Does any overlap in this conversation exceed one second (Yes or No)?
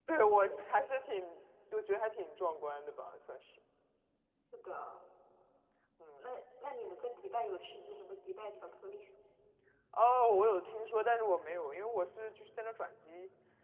No